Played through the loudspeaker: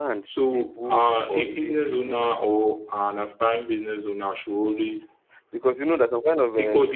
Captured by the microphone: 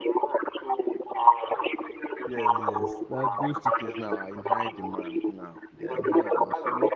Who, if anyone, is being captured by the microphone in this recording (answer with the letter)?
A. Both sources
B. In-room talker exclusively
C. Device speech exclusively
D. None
A